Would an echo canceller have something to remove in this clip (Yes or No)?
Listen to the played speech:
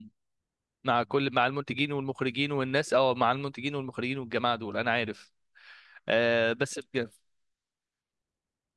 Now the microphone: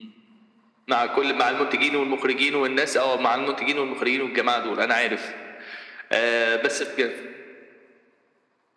Yes